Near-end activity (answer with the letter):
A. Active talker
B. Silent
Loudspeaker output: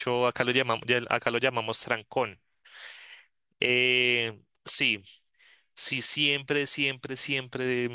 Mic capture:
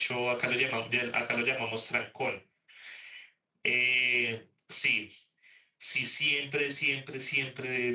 B